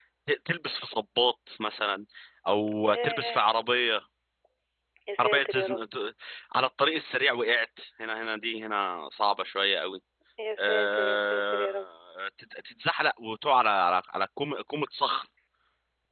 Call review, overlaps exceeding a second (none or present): present